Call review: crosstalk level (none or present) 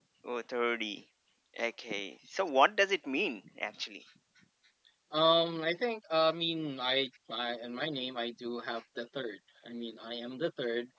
none